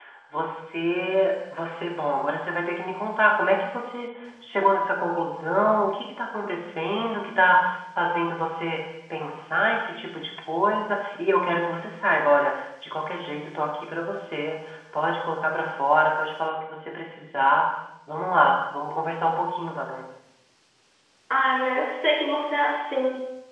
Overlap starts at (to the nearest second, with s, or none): none